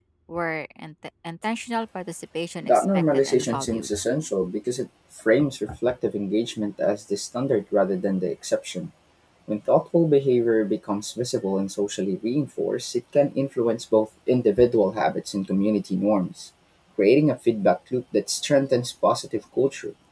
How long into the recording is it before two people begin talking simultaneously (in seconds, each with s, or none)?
2.6 s